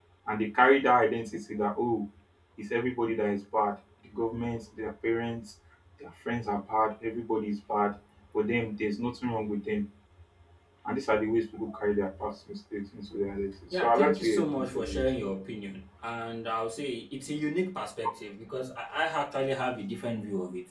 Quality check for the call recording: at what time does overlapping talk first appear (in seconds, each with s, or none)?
13.7 s